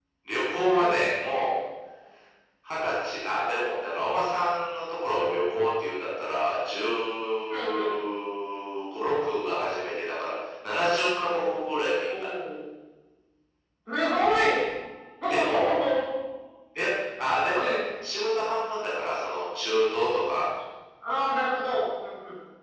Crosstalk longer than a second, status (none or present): none